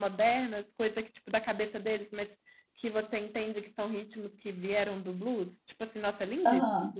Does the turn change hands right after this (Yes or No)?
Yes